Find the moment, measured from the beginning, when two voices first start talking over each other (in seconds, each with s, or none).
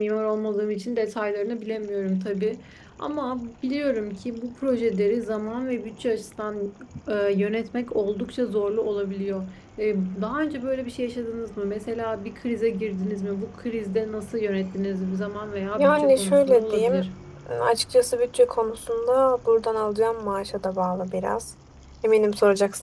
15.8 s